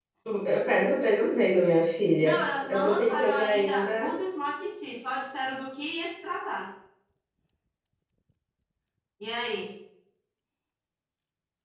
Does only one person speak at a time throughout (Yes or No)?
No